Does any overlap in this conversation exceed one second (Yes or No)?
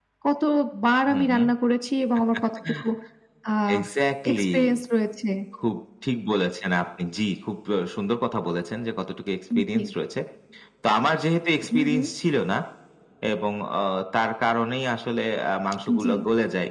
No